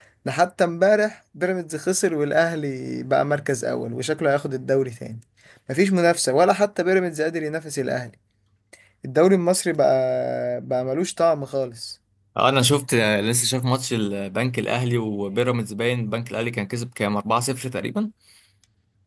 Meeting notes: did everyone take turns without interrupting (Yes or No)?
Yes